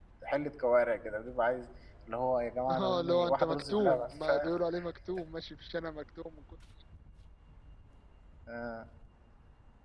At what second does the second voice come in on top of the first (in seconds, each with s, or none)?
2.8 s